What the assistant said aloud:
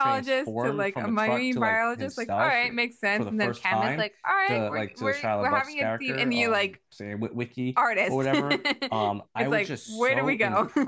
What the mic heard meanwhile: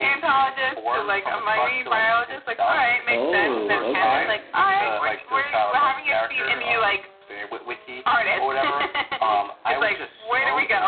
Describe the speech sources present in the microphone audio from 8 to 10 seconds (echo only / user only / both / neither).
echo only